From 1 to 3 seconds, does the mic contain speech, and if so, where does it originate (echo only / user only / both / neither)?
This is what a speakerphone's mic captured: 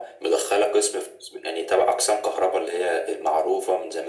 echo only